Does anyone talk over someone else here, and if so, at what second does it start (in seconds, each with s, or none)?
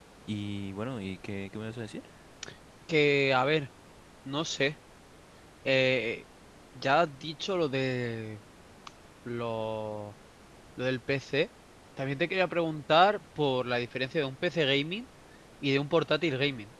none